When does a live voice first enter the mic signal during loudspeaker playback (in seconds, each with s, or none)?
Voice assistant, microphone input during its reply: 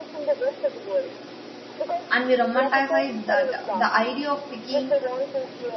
2.1 s